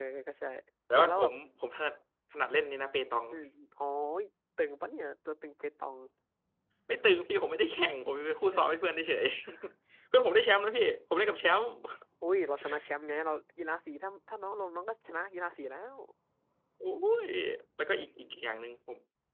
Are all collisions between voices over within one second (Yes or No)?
Yes